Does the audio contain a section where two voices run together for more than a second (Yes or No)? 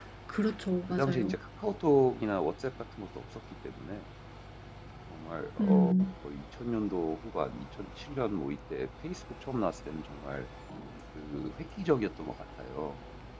No